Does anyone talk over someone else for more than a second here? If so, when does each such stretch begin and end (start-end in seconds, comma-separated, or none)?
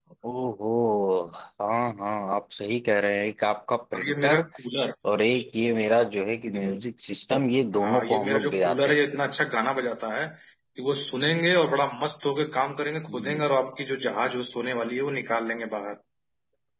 7.8-8.9